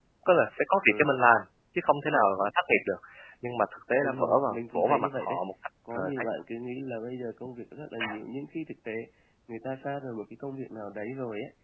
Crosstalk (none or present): present